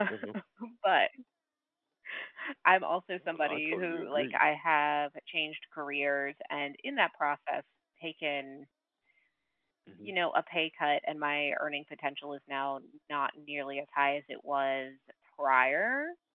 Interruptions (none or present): present